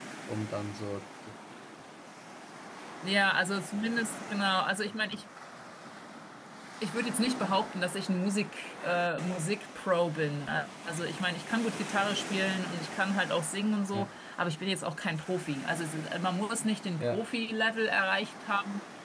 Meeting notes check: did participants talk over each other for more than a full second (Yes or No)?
No